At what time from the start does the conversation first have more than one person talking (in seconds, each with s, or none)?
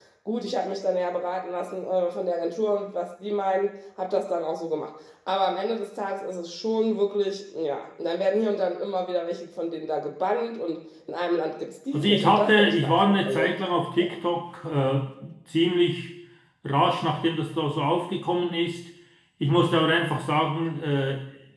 11.9 s